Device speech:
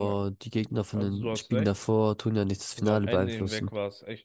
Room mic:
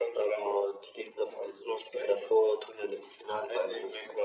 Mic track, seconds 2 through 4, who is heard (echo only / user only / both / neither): echo only